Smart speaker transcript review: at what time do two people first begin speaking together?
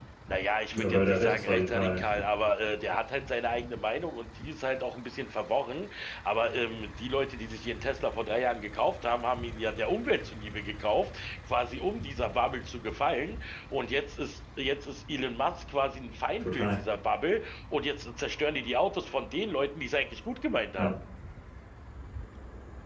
0.7 s

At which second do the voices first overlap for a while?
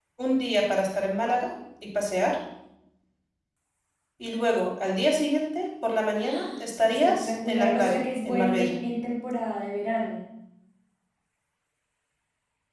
6.2 s

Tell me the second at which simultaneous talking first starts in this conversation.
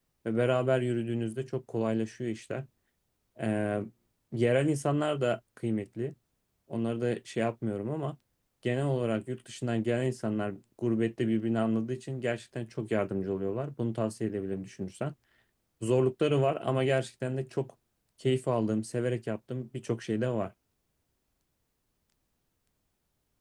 none

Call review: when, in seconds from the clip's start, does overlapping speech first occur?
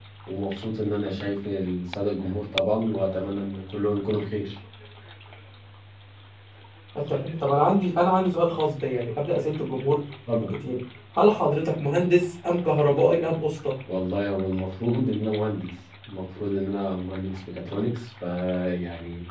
none

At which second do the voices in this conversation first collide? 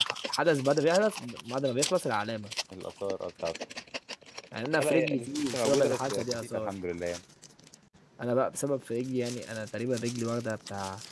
4.7 s

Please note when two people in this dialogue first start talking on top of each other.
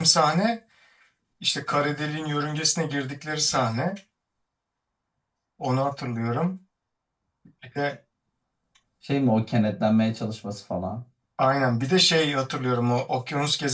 none

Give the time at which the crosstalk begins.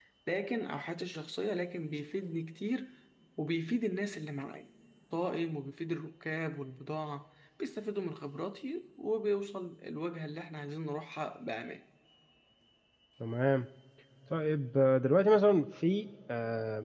none

